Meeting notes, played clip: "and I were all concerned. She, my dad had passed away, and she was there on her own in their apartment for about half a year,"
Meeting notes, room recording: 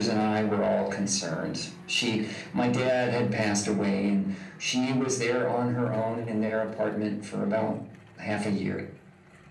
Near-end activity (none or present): none